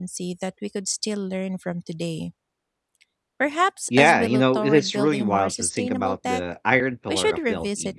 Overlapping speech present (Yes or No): Yes